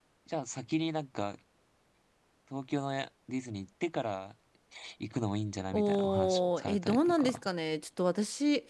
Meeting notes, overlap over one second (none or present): present